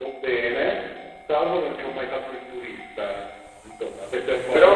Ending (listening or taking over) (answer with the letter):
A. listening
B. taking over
B